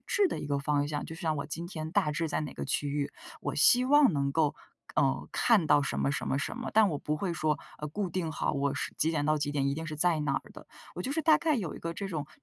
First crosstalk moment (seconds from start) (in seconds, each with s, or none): none